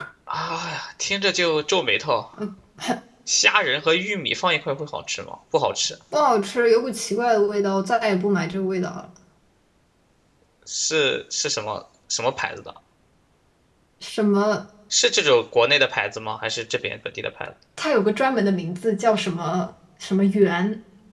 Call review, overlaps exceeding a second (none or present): none